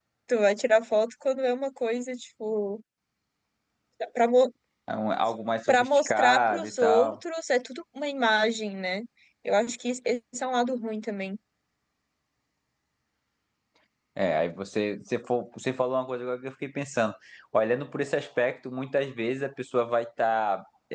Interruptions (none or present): present